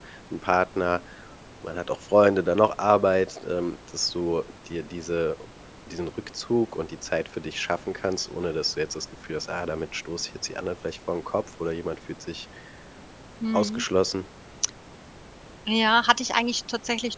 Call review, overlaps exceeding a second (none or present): none